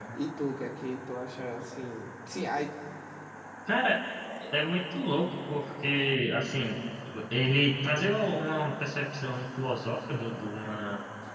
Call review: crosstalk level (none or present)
none